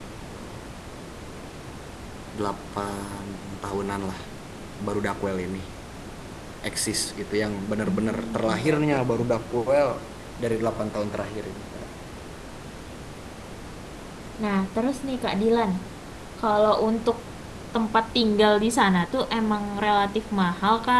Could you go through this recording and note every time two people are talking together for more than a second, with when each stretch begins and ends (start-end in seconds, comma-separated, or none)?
7.8-9.2